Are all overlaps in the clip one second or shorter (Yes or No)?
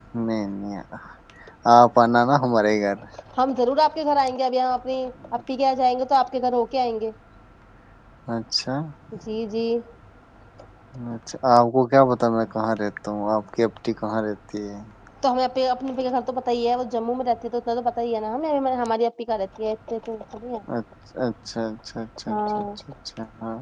Yes